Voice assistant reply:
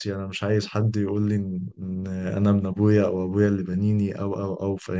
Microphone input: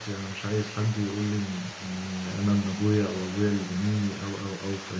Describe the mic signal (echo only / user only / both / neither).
echo only